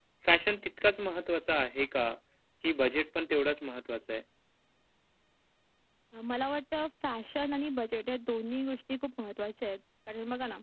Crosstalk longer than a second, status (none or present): none